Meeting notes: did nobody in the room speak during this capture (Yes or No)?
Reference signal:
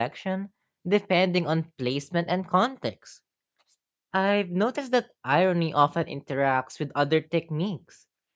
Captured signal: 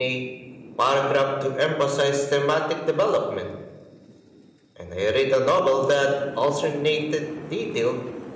No